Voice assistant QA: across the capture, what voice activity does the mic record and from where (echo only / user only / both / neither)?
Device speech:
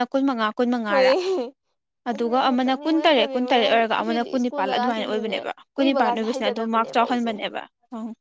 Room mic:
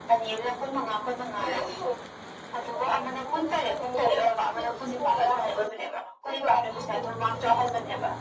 echo only